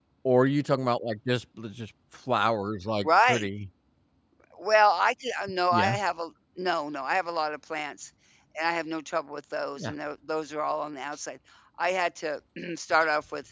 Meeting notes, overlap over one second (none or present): none